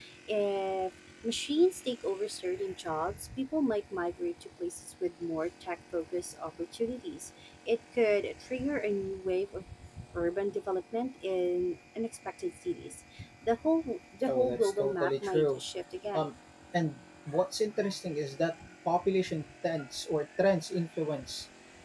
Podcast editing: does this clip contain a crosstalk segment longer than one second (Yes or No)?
Yes